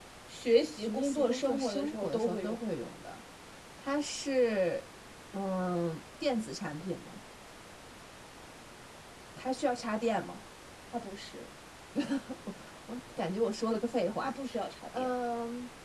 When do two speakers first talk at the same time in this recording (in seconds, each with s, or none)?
0.8 s